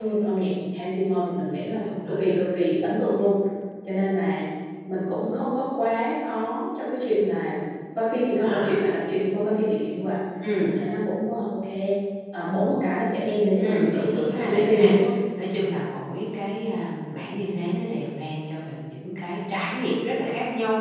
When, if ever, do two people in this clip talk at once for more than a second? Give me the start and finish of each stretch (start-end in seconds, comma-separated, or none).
13.6-14.9